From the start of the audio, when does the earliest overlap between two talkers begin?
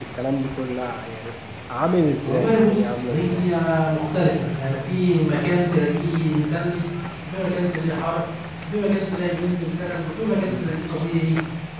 2.2 s

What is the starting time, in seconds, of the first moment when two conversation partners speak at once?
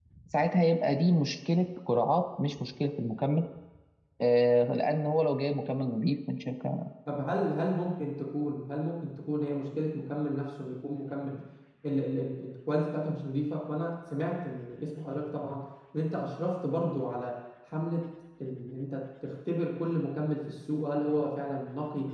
none

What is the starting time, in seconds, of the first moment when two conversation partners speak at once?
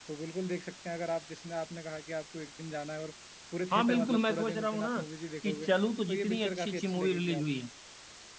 3.7 s

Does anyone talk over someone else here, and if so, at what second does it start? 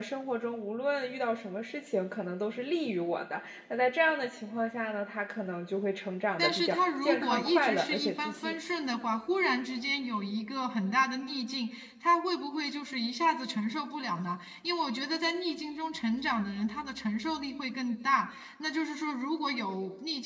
6.4 s

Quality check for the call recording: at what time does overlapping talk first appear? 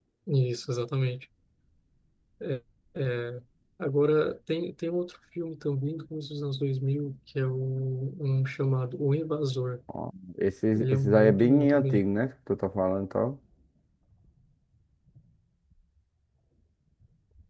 10.8 s

